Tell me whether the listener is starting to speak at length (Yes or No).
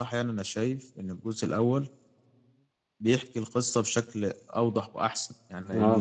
Yes